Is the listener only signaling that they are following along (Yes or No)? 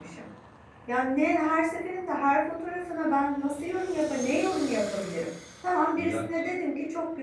Yes